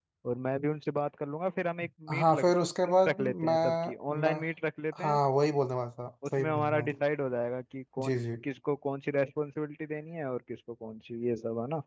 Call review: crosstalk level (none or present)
present